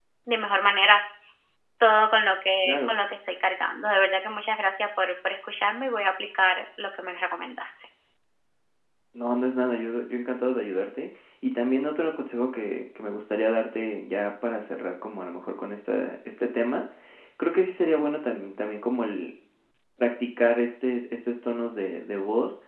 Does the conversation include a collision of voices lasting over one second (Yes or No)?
No